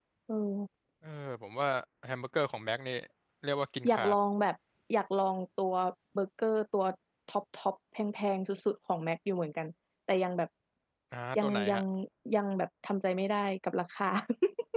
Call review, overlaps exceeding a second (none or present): none